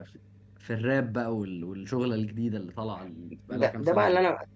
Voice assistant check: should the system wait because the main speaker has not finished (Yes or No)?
No